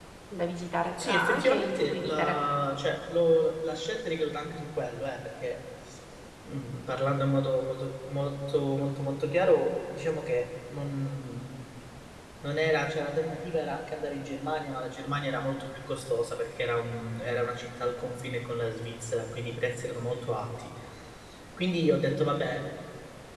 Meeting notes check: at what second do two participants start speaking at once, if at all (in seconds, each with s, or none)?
1.0 s